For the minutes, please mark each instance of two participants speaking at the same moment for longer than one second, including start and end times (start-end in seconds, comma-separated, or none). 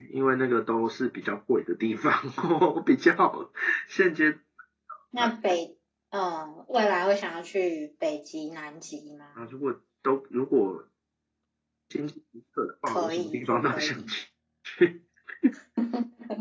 12.9-14.1